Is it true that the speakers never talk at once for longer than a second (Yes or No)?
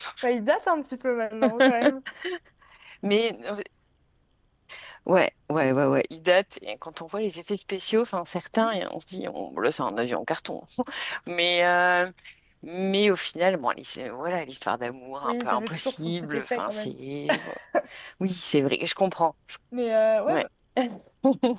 No